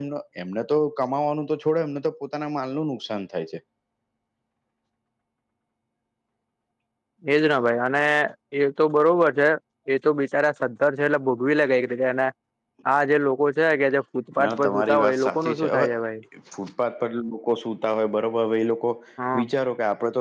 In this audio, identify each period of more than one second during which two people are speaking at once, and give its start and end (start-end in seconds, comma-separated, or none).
14.4-15.9